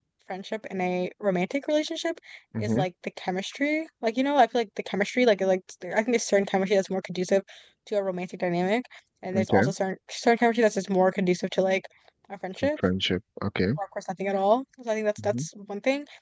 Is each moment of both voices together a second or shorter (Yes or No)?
Yes